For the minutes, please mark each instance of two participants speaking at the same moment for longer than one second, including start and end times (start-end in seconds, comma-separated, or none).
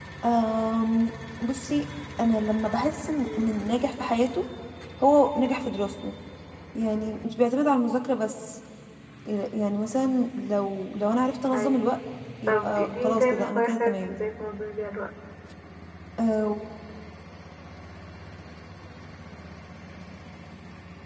12.5-14.2